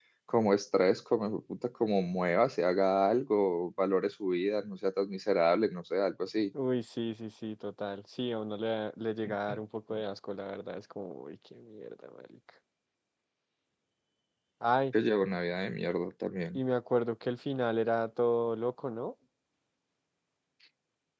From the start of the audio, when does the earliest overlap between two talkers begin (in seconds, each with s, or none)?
none